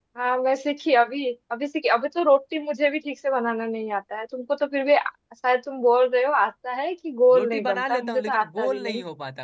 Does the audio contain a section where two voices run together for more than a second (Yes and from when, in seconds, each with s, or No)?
Yes, from 7.3 s